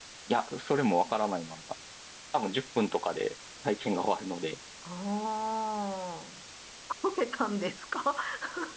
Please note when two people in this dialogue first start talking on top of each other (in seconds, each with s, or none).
none